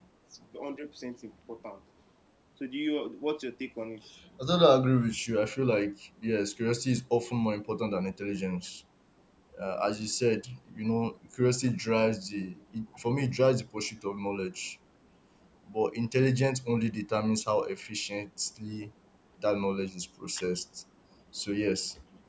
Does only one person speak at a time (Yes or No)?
Yes